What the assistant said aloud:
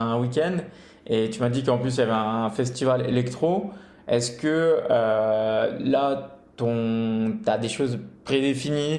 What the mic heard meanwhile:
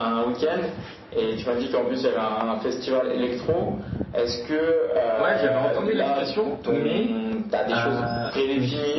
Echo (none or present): present